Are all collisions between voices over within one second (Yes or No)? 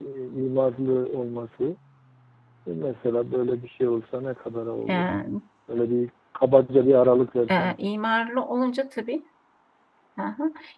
Yes